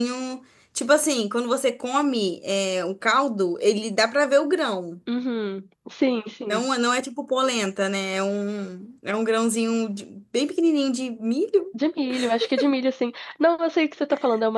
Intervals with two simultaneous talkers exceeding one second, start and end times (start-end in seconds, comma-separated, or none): none